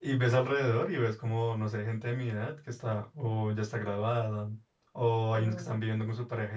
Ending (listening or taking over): listening